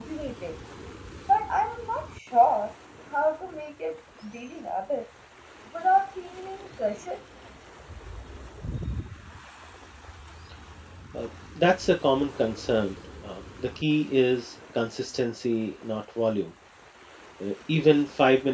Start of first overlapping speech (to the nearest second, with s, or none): none